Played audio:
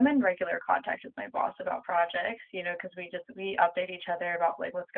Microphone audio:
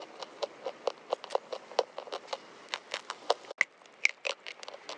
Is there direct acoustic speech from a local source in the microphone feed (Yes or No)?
No